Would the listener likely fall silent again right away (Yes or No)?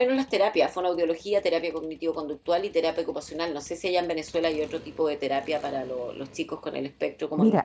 No